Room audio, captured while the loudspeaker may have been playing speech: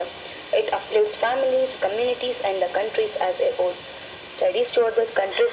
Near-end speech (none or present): none